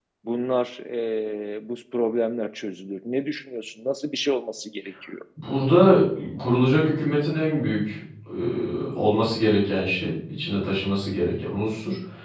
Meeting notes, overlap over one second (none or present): none